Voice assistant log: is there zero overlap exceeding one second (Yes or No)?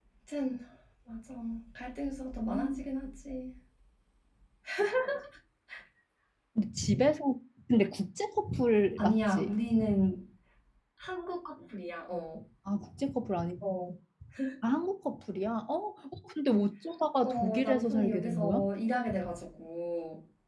No